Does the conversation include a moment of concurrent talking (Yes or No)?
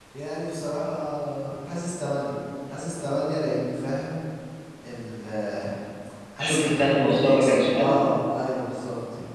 Yes